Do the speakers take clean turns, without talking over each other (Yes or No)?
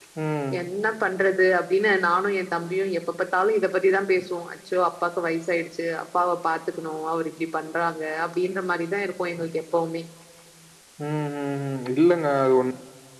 Yes